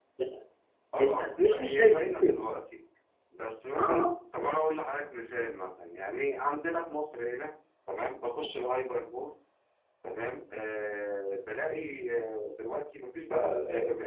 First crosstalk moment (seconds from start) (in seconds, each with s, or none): 1.0 s